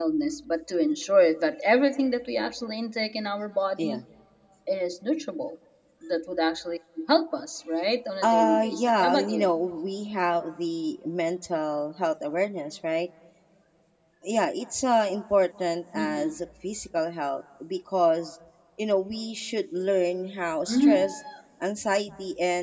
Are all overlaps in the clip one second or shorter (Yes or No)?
No